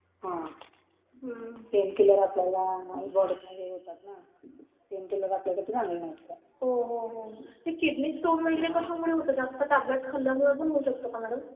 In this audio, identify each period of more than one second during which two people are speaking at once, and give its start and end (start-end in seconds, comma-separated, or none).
none